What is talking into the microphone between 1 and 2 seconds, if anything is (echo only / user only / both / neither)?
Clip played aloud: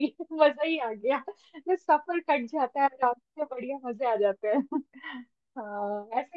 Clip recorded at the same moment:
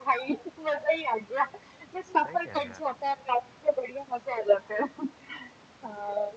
echo only